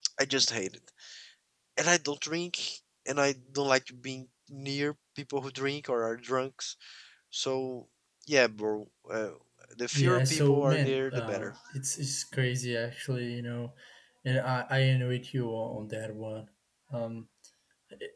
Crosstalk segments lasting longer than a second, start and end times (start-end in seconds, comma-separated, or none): 9.9-11.5